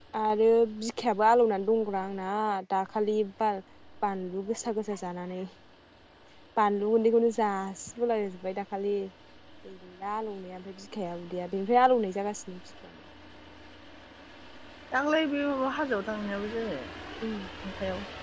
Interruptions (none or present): none